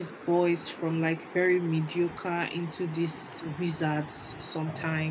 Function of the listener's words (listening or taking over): taking over